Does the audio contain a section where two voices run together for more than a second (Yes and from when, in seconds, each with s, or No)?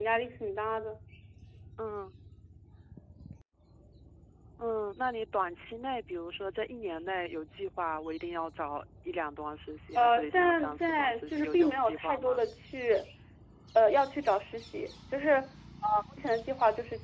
Yes, from 10.0 s